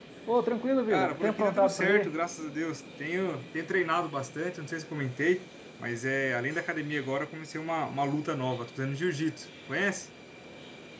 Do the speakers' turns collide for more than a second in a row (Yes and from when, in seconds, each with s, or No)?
Yes, from 0.9 s